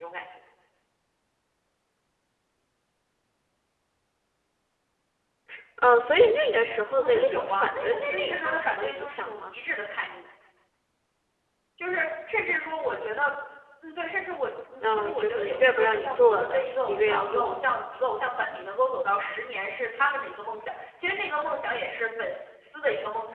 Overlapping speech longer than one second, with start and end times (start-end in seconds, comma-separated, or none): 7.0-9.5, 14.8-17.6